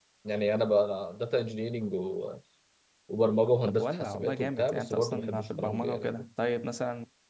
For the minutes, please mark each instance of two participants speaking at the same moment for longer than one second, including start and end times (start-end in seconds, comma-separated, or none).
3.7-6.1